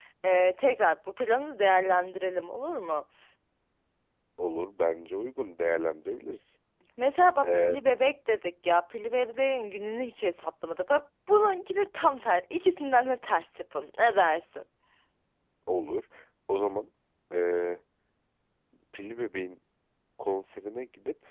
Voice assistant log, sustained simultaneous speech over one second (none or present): none